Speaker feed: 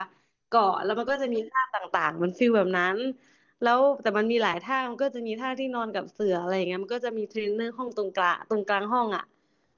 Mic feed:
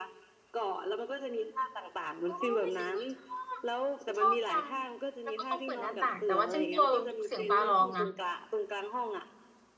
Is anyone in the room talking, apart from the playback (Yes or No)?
Yes